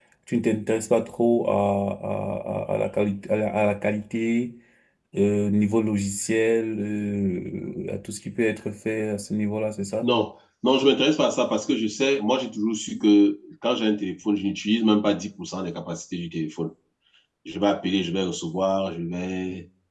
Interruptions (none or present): none